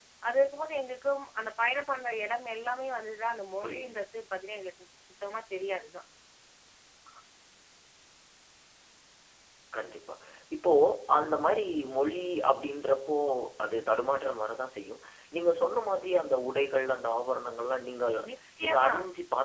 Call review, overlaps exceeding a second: none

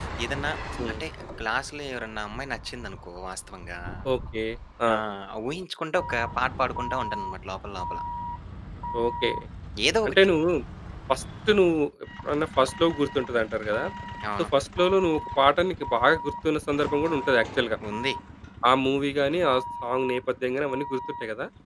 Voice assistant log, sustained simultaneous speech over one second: none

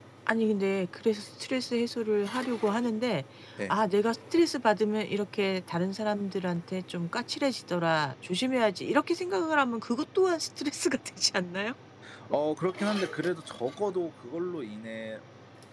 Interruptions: none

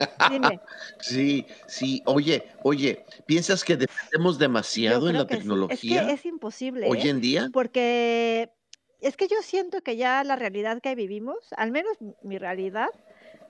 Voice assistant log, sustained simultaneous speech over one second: present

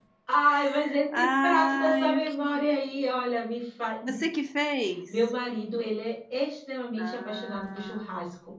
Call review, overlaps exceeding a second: present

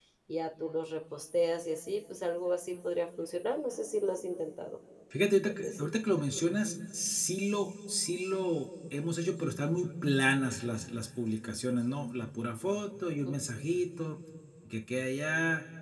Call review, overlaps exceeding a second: none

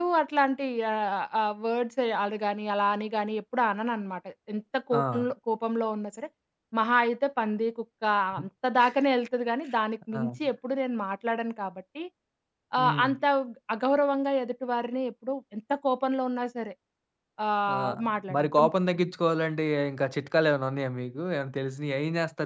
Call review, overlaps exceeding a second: none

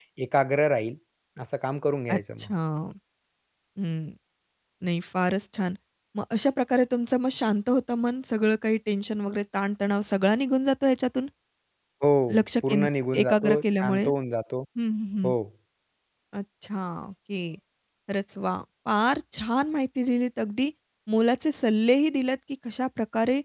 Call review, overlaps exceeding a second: present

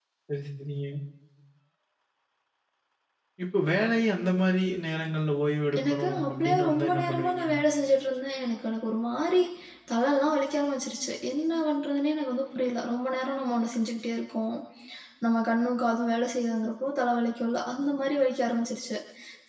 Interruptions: present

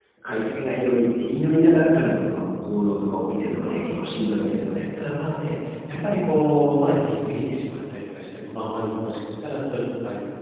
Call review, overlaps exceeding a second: present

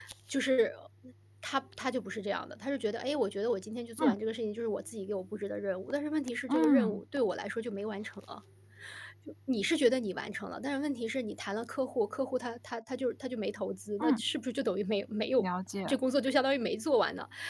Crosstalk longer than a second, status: none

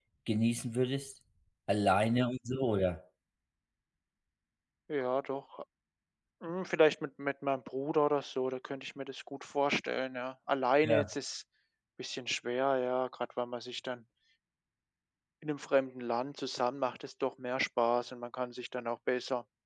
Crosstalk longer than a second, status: none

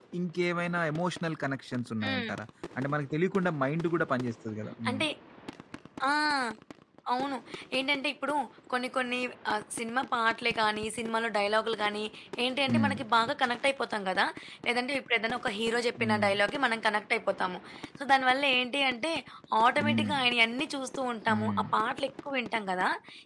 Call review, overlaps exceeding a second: none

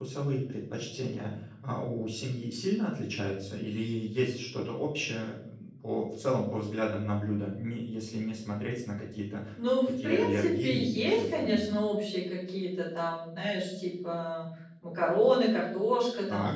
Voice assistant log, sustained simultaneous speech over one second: present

